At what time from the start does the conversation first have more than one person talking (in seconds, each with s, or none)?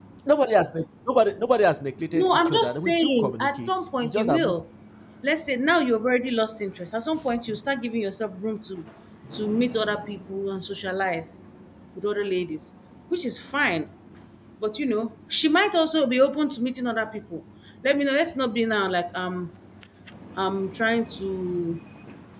2.1 s